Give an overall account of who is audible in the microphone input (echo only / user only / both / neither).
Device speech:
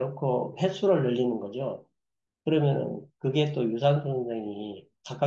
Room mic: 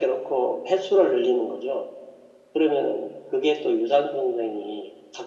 echo only